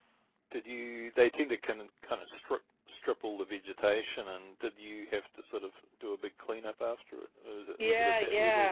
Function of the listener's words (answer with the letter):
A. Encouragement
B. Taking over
B